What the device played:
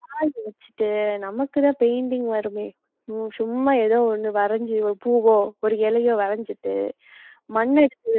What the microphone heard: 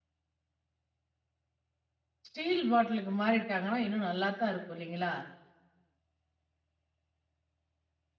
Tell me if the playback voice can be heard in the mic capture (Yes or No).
No